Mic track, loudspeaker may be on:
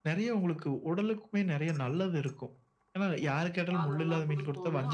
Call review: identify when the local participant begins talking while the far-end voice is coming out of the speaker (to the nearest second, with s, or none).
4 s